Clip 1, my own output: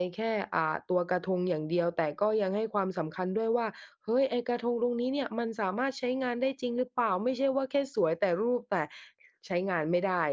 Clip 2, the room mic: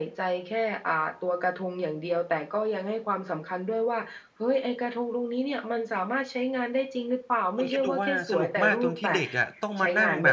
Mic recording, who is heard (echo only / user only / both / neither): both